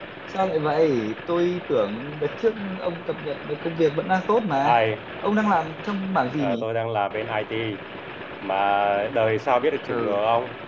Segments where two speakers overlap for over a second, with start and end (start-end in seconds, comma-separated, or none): none